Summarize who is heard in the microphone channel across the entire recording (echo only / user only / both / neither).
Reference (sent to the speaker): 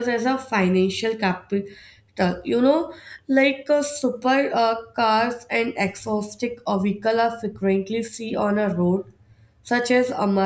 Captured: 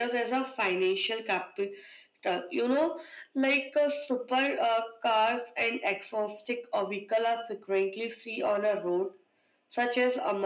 echo only